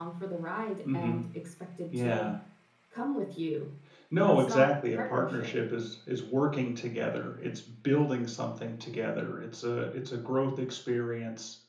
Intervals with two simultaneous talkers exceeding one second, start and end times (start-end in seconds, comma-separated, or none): 4.2-5.5